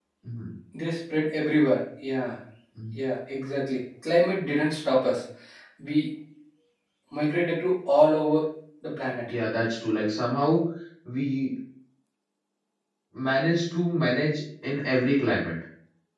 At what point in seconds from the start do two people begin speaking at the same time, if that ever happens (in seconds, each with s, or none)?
none